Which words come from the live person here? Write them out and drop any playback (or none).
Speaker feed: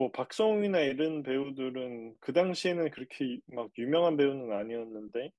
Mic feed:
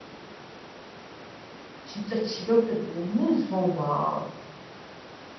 진짜 집에 올 때 너무 무서운 거야.